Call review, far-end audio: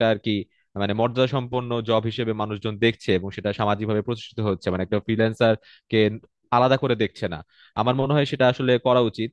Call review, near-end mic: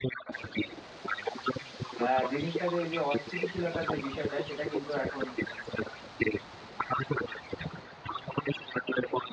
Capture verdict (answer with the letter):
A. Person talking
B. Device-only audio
A